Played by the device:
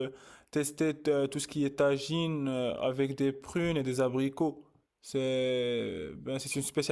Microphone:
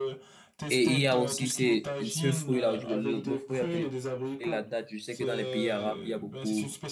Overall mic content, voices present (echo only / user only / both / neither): both